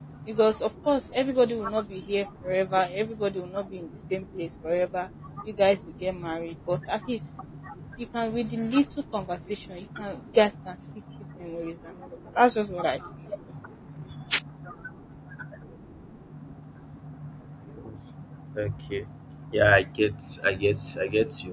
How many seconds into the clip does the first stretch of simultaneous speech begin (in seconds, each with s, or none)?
none